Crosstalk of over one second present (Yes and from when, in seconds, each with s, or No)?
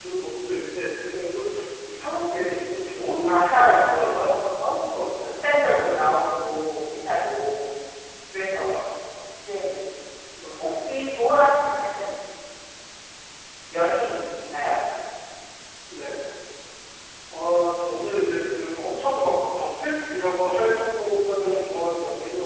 Yes, from 3.2 s